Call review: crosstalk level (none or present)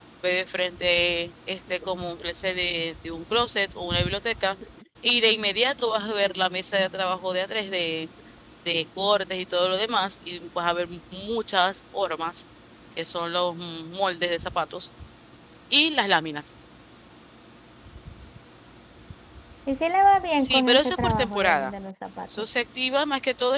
present